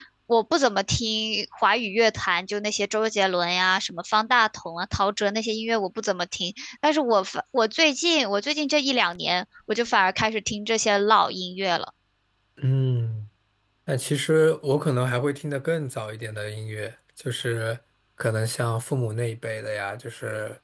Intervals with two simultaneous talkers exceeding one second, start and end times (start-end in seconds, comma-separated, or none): none